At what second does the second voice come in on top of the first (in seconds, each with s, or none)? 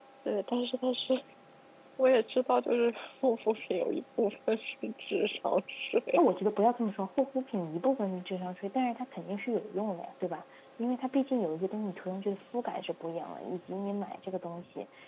none